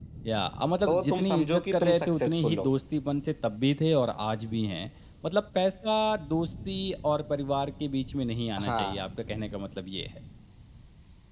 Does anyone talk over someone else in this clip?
Yes, from 0.9 s

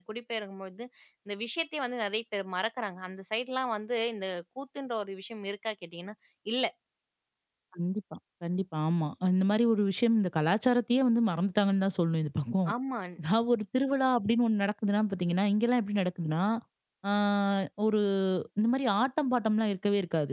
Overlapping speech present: No

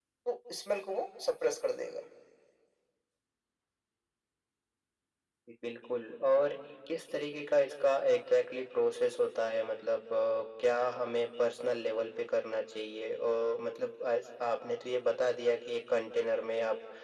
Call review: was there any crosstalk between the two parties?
No

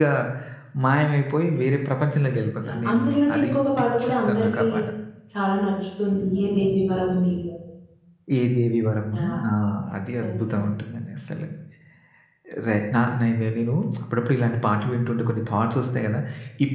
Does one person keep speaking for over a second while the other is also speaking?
Yes, from 2.6 s

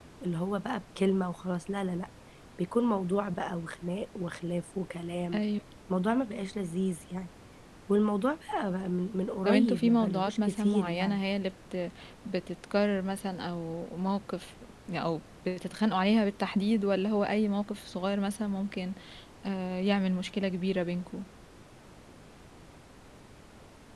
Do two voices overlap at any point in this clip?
Yes, from 9.4 s

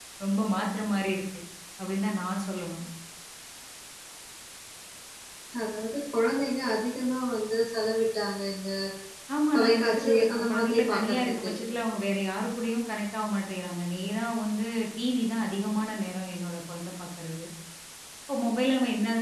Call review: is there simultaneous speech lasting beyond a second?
Yes, from 9.6 s

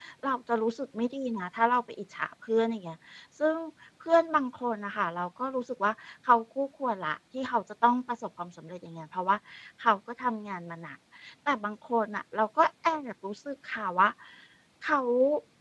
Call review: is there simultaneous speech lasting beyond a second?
No

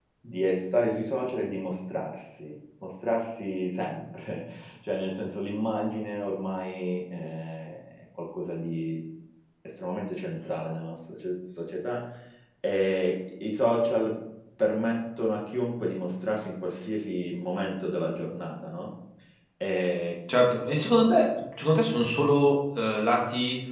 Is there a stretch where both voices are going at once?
No

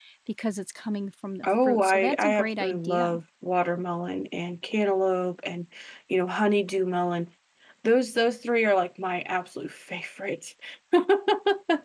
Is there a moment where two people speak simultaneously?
Yes, from 1.4 s

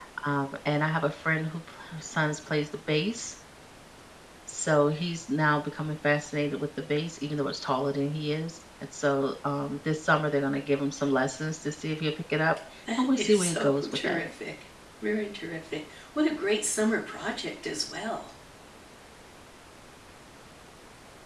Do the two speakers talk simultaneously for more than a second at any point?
Yes, from 13.0 s

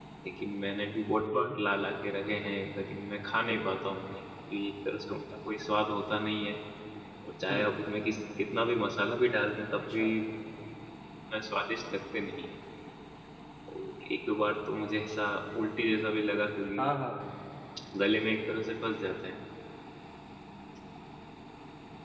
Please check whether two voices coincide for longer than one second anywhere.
No

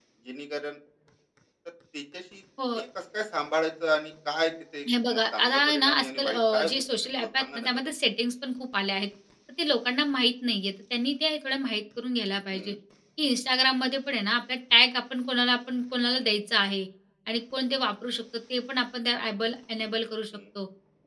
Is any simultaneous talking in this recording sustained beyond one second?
Yes, from 4.8 s

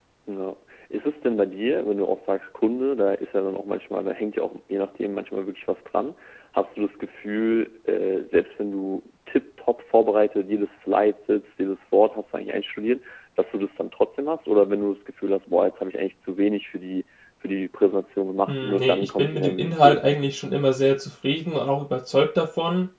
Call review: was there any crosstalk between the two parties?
Yes, from 18.5 s

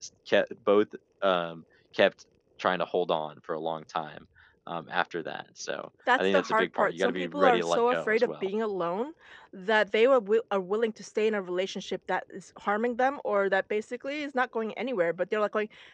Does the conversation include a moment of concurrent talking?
Yes, from 6.1 s

